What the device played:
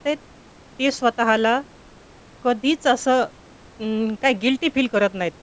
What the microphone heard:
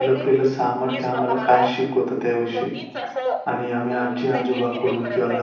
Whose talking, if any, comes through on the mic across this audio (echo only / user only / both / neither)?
both